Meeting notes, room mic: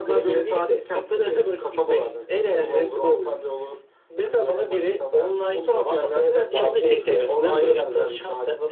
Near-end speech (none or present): present